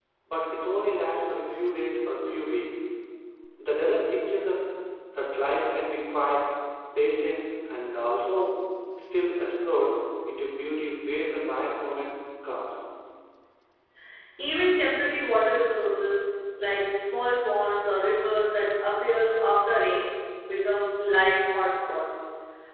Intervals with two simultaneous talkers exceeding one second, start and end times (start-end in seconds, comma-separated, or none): none